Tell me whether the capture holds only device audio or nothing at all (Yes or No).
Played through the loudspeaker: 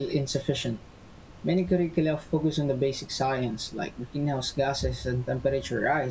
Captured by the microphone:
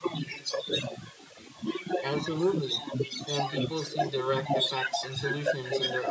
No